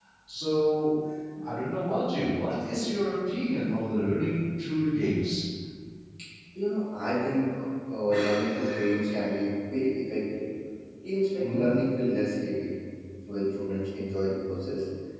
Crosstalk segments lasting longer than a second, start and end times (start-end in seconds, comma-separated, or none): none